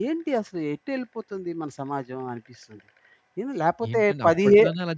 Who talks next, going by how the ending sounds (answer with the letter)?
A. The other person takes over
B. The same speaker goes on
A